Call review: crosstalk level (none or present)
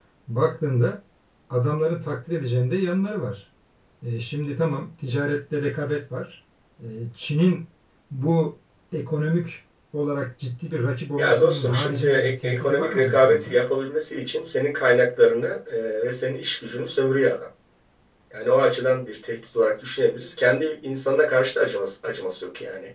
present